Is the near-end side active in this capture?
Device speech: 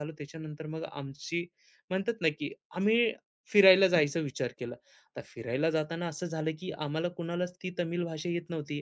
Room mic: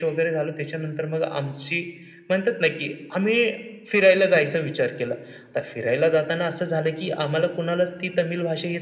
No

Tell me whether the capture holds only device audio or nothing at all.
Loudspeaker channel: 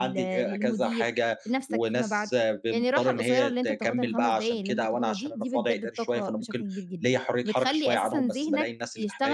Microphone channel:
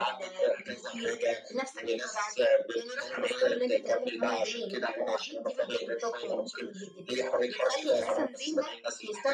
Yes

